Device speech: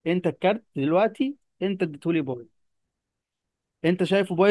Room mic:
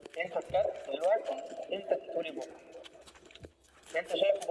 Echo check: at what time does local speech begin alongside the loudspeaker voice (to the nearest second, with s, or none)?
none